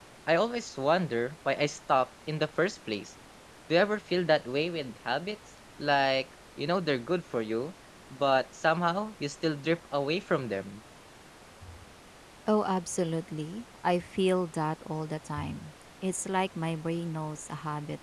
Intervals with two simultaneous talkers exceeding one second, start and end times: none

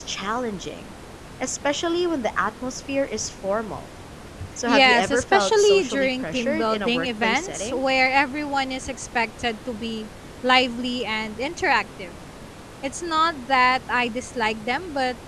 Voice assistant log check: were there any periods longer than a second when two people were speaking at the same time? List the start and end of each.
4.6-7.8

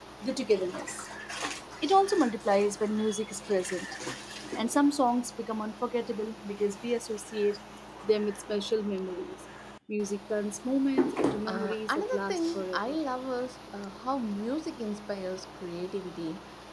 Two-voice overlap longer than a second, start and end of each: 11.5-13.0

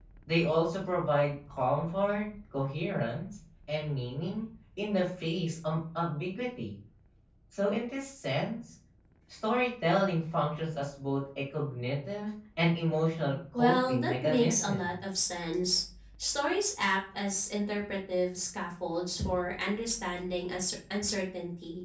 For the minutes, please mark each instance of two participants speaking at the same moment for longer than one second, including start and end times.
13.5-14.9

